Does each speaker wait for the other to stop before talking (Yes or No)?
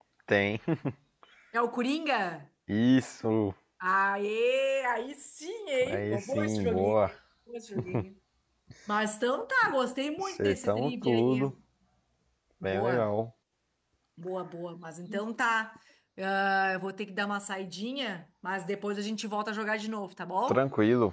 No